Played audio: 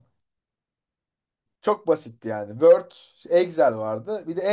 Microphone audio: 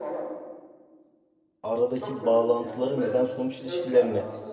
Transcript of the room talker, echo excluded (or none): aradaki bağlantıları neden sonuç ilişkilerini